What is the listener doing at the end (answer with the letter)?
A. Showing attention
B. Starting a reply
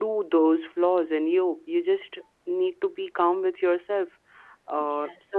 A